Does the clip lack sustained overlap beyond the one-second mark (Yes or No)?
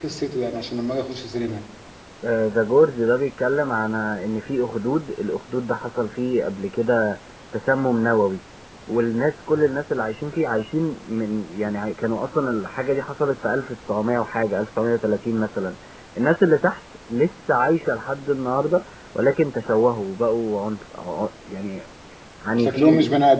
Yes